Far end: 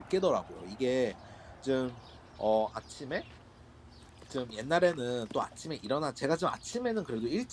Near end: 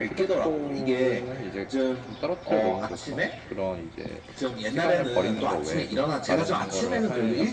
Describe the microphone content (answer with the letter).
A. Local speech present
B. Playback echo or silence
A